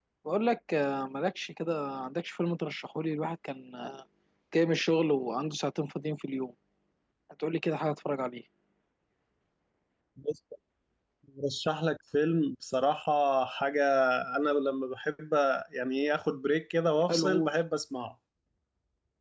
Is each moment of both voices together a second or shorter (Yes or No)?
Yes